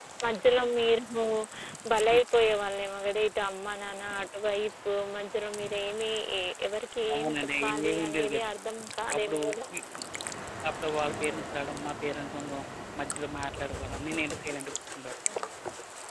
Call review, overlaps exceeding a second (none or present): present